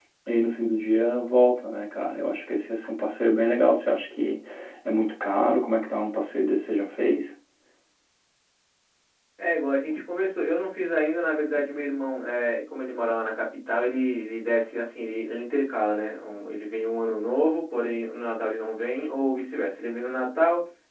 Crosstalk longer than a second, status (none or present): none